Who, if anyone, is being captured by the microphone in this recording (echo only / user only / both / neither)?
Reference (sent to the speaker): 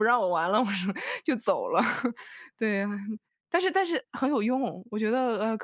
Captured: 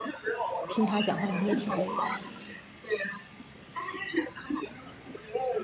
both